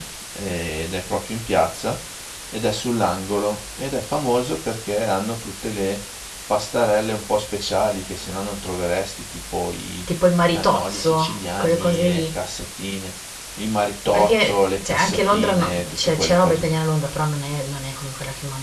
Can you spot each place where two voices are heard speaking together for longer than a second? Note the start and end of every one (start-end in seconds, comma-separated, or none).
10.5-12.4, 14.1-16.7